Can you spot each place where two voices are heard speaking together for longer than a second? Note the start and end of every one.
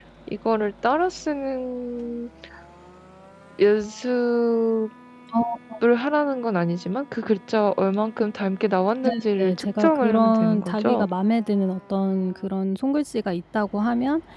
9.4-11.1

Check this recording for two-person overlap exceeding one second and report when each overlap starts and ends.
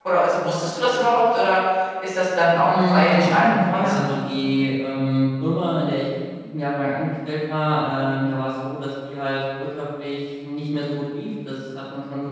2.6-4.0

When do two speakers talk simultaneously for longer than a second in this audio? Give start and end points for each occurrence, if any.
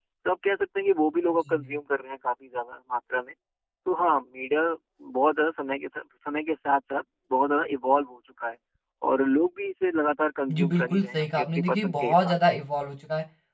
10.5-12.3

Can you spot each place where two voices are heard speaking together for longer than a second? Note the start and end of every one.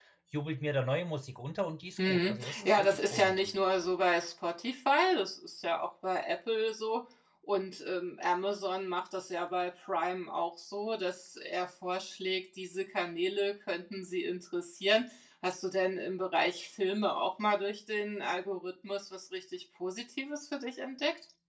2.1-3.5

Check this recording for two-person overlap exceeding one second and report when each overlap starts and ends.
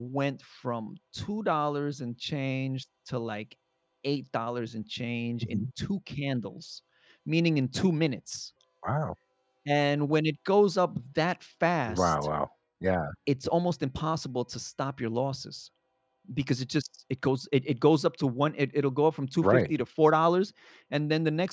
none

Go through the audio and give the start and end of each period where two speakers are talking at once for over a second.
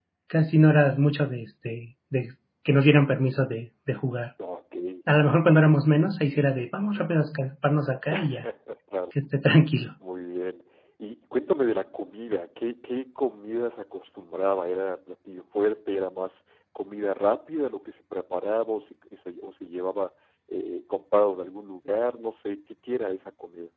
none

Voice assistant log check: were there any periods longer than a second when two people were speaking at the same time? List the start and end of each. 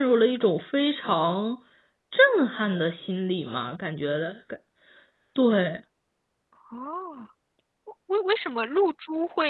none

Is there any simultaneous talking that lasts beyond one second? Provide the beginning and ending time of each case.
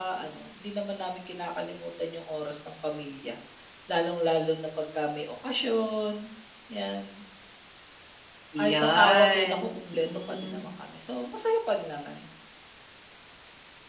8.6-10.6

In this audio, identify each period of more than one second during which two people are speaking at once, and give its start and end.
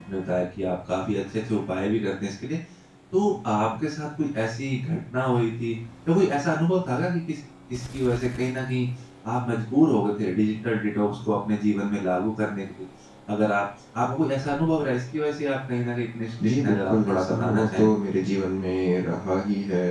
16.4-17.9

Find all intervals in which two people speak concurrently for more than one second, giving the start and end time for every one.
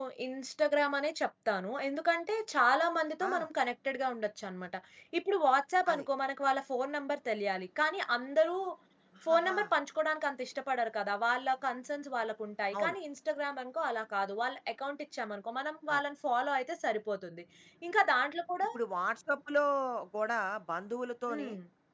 none

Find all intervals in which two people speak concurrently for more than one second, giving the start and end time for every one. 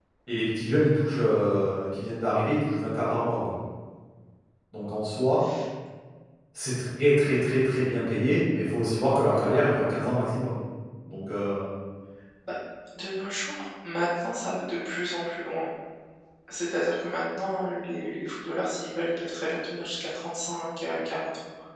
none

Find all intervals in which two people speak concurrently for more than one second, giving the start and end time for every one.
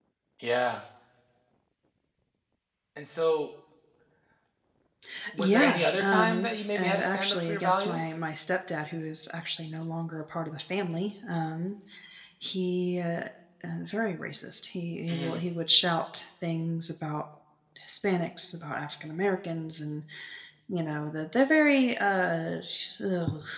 5.4-8.2

